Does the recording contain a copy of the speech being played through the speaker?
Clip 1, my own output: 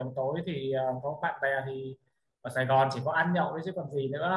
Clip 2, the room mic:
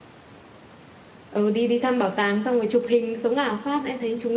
No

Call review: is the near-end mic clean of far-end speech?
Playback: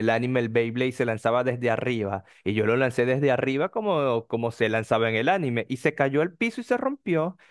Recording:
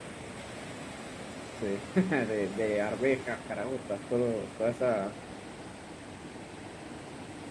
Yes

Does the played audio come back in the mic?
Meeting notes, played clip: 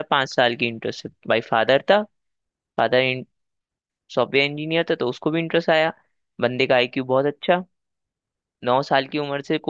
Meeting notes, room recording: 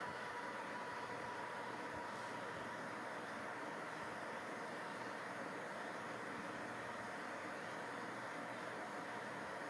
No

